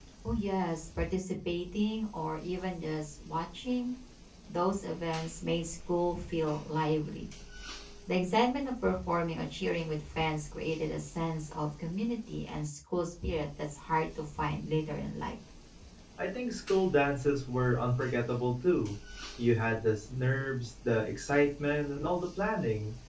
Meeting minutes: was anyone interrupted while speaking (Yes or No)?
No